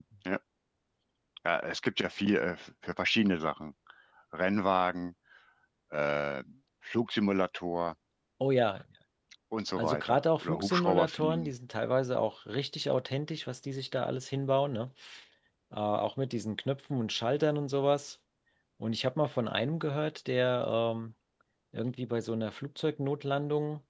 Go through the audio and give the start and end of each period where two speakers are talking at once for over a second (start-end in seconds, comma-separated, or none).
9.8-11.5